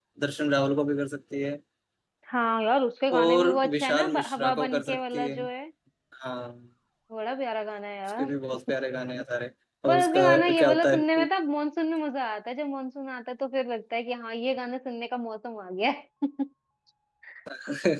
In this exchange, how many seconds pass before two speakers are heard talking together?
3.1 s

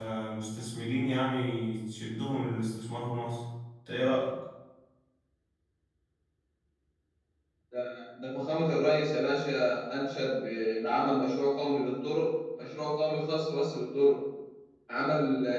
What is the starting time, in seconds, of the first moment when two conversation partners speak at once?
none

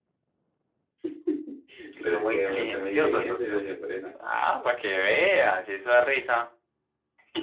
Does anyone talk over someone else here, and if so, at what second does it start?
2.0 s

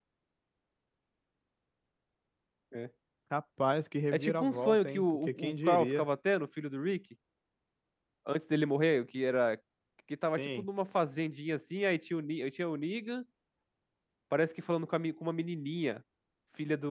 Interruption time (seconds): 4.1 s

